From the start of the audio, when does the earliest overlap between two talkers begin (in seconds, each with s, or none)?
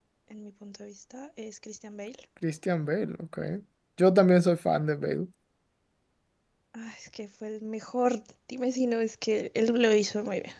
none